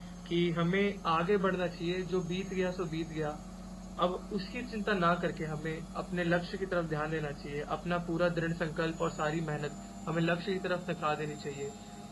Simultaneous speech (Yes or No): No